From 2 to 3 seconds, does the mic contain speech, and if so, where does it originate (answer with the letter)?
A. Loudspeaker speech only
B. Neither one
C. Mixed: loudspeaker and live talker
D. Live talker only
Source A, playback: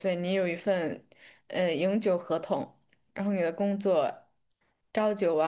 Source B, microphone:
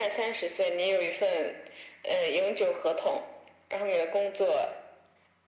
A